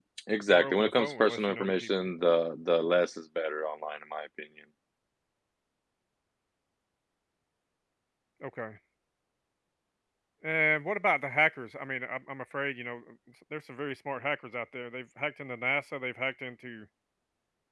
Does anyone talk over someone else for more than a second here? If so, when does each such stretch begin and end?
0.5-1.9

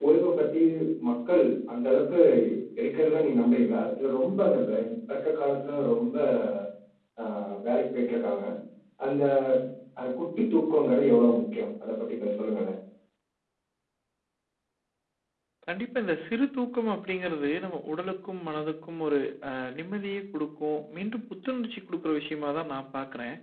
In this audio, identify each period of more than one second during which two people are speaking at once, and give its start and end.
none

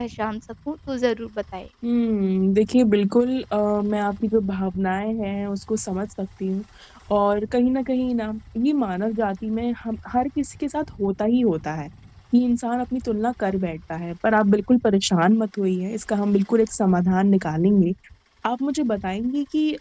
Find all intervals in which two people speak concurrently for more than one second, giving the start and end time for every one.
none

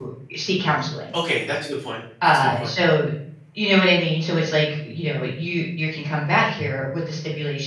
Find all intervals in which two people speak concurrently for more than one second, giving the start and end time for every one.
none

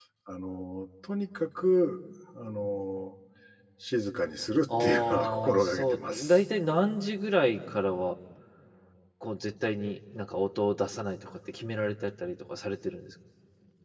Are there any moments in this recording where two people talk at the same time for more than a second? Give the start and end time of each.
4.8-6.4

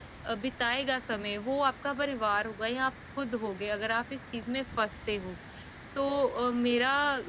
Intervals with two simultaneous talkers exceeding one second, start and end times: none

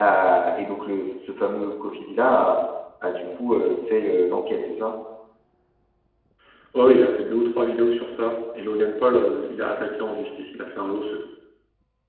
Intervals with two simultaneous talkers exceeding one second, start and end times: none

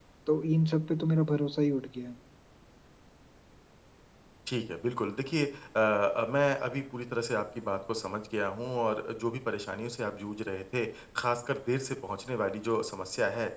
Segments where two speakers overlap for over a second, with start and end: none

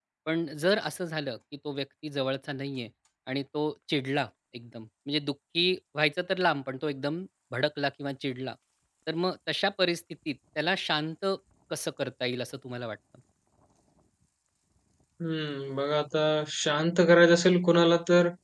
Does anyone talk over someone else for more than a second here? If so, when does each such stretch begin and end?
none

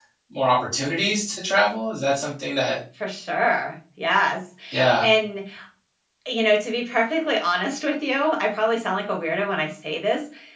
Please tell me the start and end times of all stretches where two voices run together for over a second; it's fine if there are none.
none

